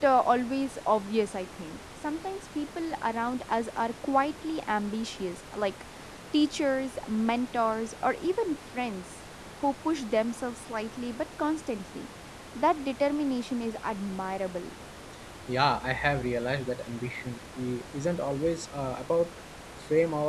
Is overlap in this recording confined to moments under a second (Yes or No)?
Yes